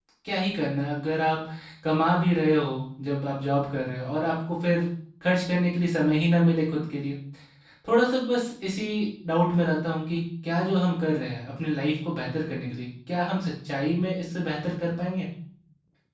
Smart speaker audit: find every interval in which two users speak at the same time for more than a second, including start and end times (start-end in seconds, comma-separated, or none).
none